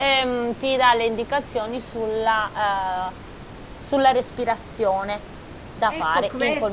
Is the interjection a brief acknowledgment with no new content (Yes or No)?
No